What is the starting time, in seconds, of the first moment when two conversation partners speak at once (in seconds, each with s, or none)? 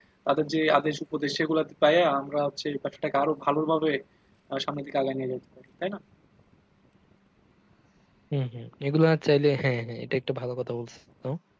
none